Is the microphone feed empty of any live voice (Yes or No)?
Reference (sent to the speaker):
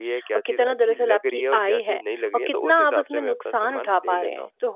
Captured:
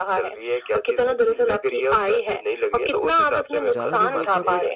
No